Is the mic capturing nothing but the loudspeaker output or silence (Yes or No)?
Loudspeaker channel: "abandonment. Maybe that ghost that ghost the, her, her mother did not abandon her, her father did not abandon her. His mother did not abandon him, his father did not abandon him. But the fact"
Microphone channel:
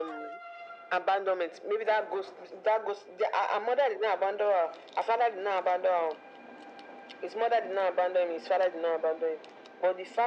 Yes